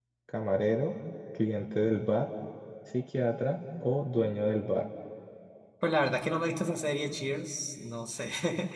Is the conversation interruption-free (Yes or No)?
Yes